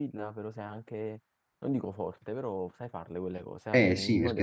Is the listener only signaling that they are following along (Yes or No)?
No